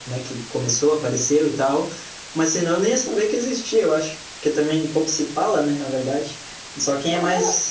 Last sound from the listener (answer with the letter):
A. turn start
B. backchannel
B